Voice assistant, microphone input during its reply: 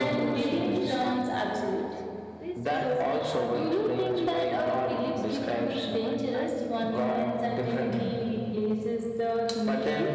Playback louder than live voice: Yes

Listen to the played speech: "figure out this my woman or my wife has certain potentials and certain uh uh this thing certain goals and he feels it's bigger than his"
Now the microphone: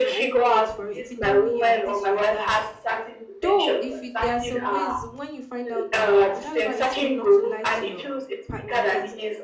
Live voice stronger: No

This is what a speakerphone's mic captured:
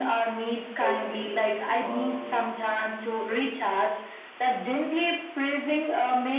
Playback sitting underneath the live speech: No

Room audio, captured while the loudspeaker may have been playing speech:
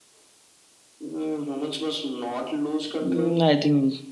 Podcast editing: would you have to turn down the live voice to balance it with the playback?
Yes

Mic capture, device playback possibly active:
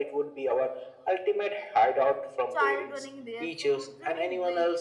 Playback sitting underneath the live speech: No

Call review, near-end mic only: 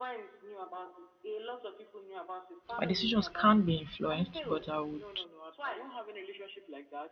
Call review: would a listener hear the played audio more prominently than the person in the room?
No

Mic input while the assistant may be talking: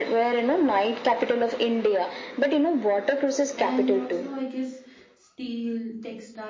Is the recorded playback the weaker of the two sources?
No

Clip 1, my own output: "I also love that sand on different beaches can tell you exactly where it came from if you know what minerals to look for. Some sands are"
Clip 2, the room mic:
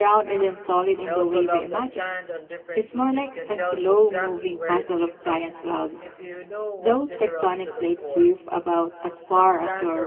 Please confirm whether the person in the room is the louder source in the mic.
Yes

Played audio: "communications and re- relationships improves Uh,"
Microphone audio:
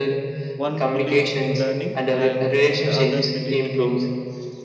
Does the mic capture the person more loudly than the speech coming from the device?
No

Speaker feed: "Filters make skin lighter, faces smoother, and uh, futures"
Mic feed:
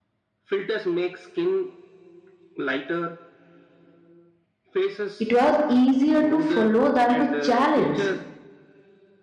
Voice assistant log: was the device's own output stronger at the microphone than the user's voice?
No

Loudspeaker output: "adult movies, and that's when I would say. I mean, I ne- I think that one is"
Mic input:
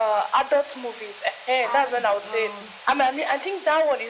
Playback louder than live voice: Yes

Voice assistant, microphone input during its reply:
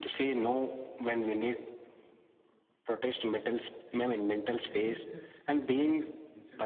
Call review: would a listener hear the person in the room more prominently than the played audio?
No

